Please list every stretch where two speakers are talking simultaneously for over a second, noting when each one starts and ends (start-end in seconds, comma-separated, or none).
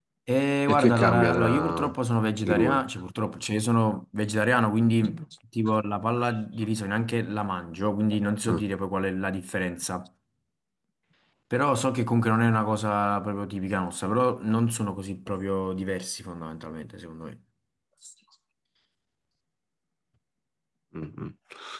0.7-1.9